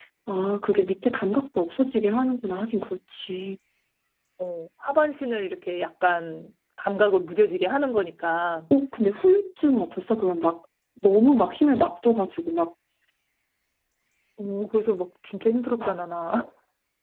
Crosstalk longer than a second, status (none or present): none